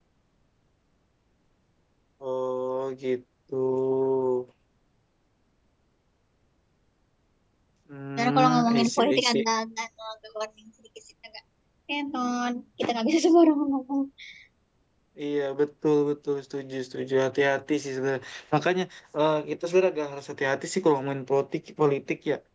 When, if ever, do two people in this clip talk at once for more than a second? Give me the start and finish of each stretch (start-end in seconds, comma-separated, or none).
8.2-9.4